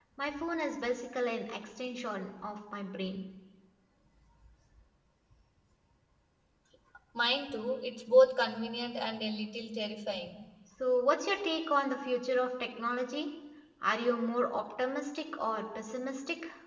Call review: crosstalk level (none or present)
none